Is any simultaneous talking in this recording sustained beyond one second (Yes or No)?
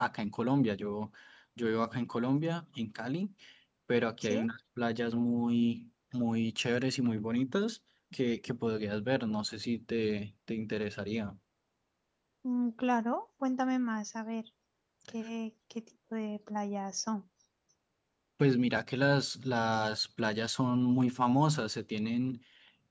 No